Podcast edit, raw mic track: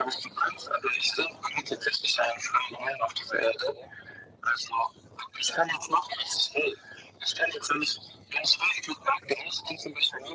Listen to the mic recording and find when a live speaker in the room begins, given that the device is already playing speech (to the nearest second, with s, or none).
none